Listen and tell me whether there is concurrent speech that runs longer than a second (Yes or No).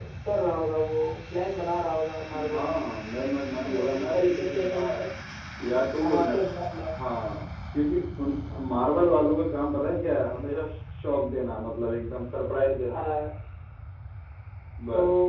Yes